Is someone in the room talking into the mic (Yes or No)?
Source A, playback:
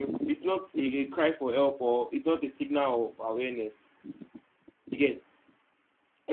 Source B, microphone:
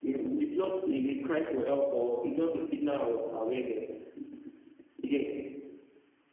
No